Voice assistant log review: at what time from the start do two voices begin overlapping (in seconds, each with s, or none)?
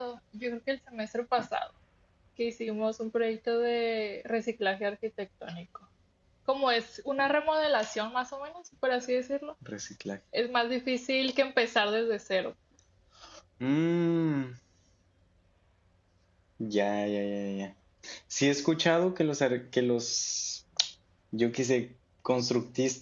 none